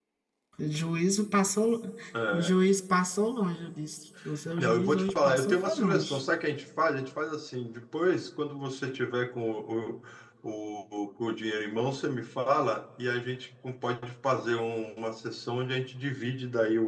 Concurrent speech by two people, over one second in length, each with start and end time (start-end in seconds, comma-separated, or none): 4.6-6.2